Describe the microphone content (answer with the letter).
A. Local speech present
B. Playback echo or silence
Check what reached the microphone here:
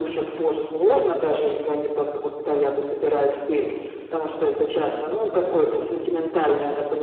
B